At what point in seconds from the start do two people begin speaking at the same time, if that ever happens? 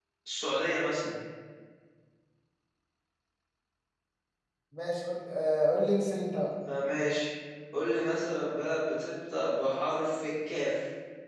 none

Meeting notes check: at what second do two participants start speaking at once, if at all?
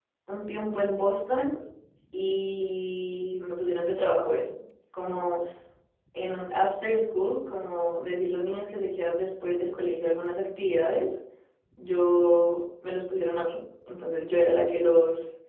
none

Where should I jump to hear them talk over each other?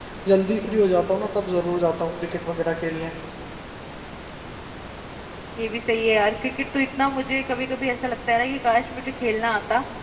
none

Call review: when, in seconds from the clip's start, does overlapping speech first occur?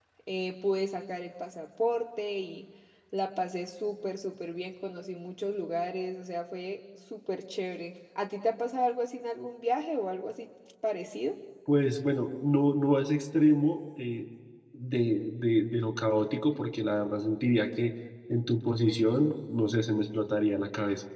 none

